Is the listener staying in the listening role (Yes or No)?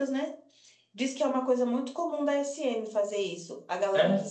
Yes